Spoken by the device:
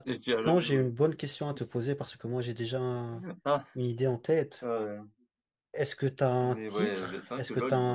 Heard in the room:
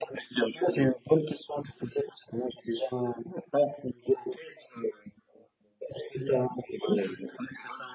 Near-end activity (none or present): none